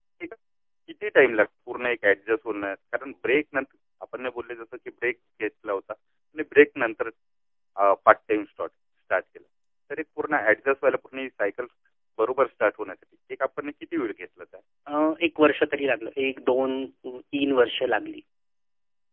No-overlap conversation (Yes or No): Yes